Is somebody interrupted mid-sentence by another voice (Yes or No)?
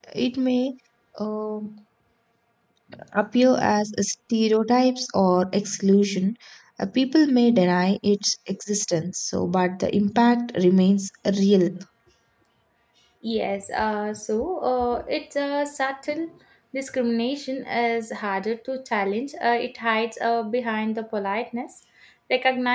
No